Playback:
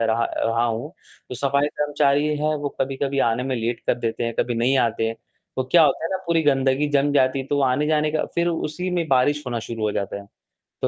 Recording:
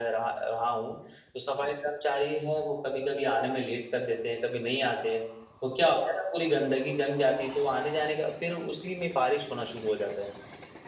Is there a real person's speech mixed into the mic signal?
No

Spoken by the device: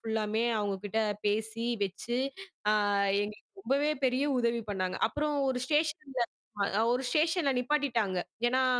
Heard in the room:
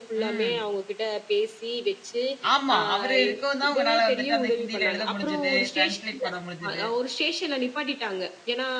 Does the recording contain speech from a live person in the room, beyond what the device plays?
Yes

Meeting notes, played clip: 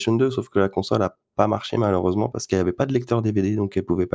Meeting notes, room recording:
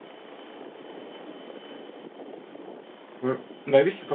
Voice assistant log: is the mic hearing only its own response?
No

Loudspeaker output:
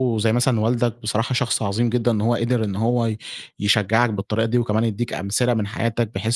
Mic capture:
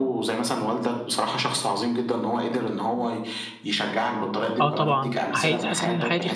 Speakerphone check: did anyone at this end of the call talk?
Yes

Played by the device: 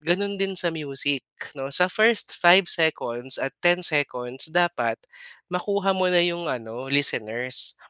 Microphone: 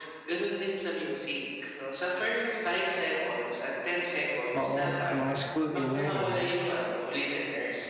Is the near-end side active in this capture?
Yes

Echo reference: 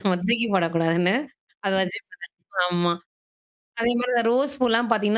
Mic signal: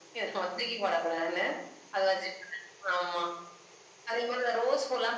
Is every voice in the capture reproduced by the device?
Yes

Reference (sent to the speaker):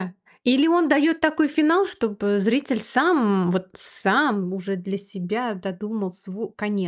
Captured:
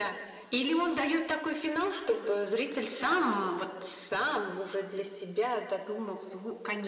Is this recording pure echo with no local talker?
Yes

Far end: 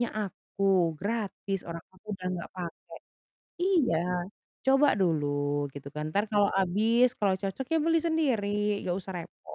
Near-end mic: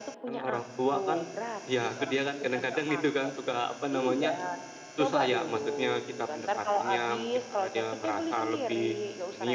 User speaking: Yes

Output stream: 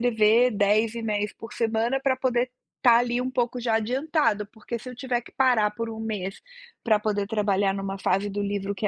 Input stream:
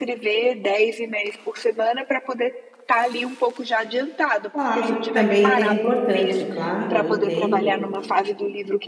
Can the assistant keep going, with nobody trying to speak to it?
No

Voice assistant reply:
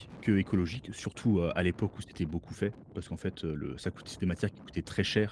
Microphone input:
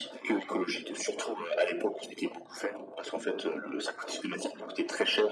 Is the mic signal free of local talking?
Yes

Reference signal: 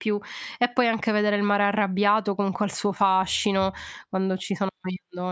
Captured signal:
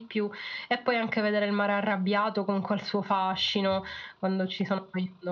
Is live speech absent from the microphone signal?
Yes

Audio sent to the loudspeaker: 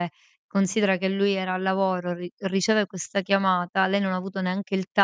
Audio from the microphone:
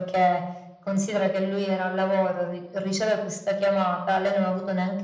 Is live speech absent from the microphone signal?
Yes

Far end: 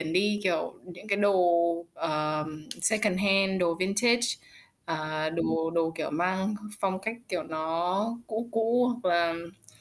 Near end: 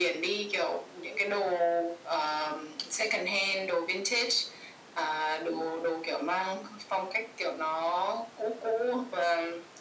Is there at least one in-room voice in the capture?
No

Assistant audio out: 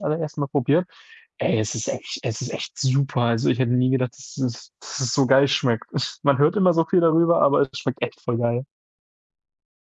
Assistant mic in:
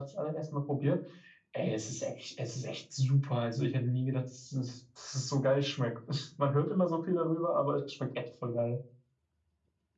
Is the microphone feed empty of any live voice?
Yes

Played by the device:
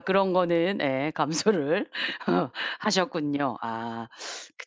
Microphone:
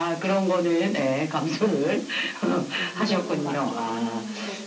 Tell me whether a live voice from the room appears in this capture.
Yes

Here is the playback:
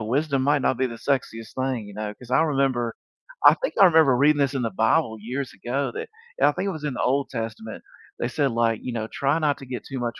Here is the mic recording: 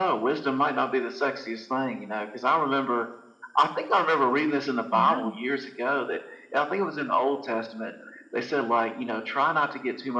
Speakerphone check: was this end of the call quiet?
No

